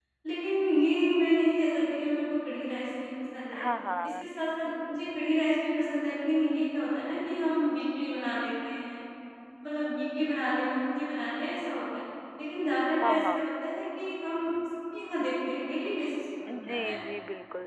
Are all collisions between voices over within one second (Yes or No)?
Yes